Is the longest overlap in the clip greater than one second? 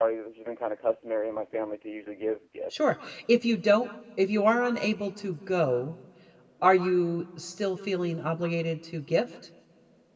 No

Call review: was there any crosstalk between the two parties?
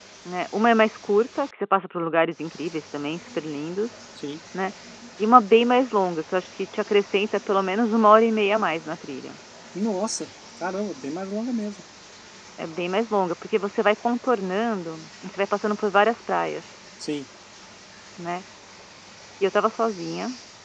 No

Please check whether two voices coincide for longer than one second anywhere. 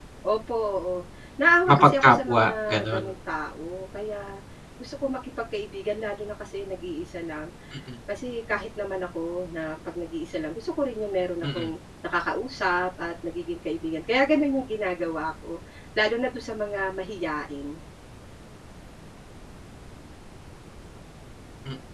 Yes, from 1.7 s

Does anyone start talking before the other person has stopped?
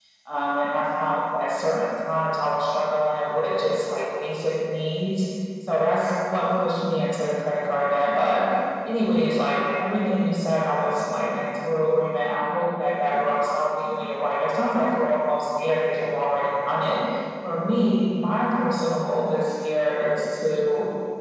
No

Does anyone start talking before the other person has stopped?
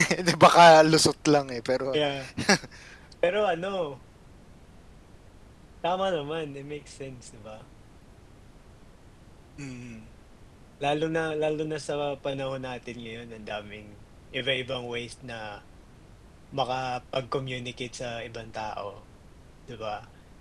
No

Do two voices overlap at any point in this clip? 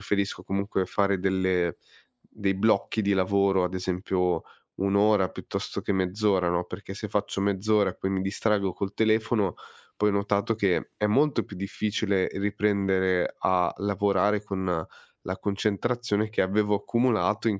No

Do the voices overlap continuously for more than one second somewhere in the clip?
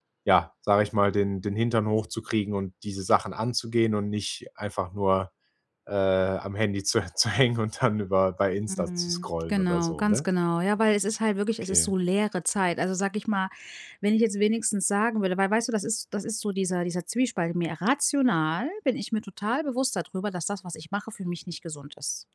Yes, from 8.7 s

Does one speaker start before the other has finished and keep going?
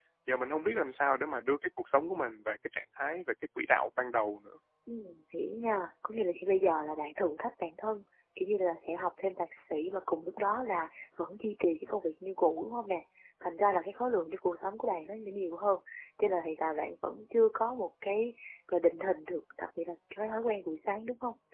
No

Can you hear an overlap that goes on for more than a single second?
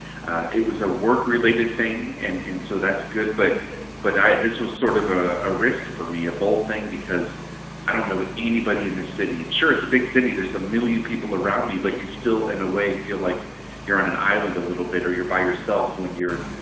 No

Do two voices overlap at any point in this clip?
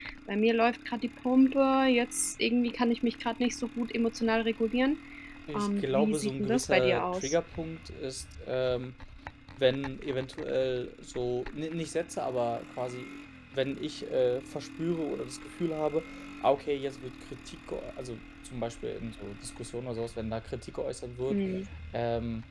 Yes, from 5.5 s

